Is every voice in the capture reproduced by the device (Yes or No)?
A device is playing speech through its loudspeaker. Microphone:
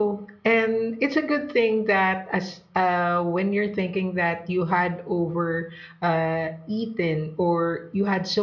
No